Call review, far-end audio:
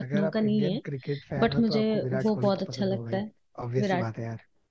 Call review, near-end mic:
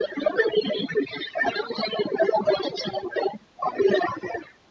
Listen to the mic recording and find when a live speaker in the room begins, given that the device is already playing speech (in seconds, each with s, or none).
none